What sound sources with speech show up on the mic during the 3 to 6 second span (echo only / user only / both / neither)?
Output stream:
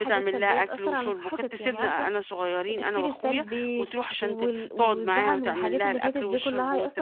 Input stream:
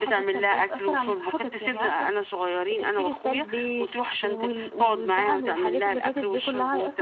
echo only